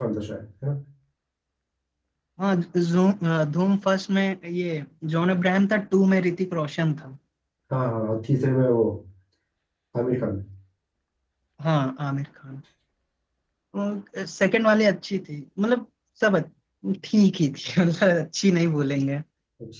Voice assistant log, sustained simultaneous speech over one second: none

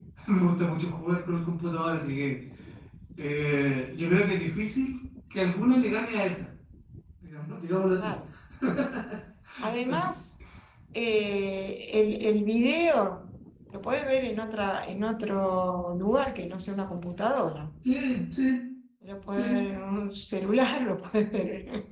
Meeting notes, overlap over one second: none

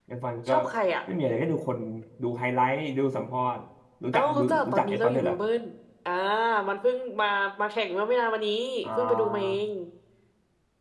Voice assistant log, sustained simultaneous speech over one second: present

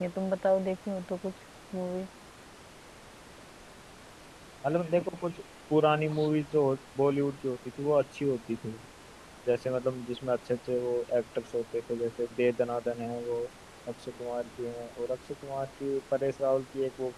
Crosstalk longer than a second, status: none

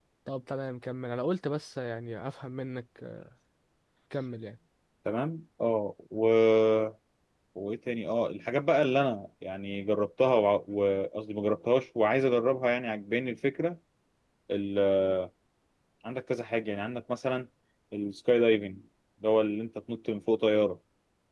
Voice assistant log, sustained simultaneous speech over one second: none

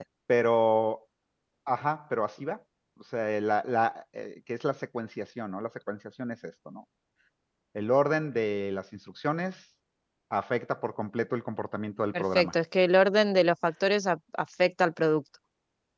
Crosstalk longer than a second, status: none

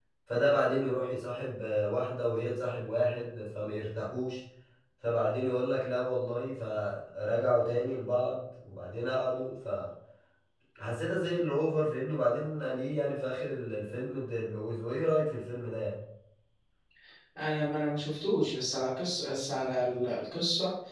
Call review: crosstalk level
none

